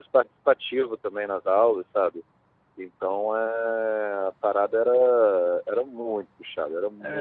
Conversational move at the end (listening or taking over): listening